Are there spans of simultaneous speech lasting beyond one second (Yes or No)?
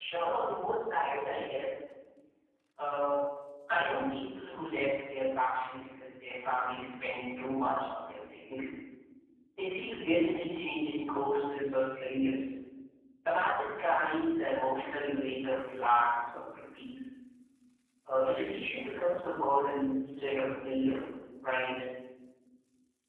No